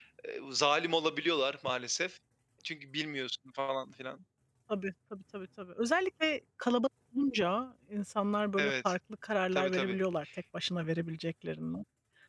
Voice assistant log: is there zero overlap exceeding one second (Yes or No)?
Yes